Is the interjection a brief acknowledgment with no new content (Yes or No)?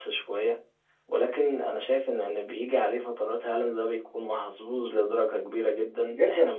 No